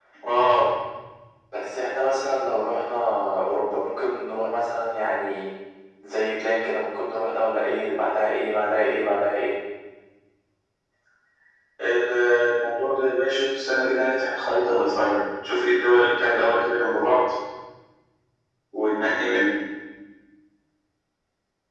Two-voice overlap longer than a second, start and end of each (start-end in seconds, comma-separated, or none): none